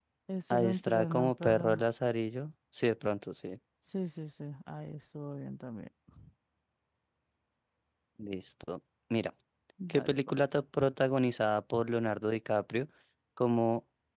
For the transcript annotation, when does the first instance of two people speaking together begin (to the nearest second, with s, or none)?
1 s